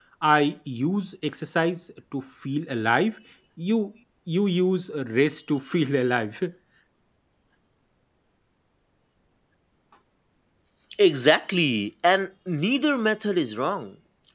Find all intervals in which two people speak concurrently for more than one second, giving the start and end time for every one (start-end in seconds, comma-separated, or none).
none